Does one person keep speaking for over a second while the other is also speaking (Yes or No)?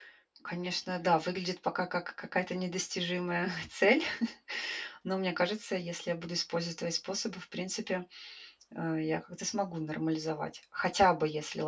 No